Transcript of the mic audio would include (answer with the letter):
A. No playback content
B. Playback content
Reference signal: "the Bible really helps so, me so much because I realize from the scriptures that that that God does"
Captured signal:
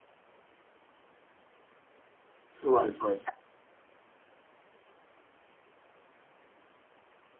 A